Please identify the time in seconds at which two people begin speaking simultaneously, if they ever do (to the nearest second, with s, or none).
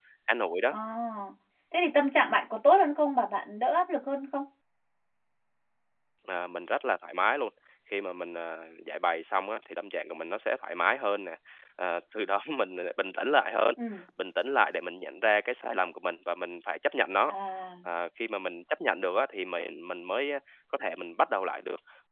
none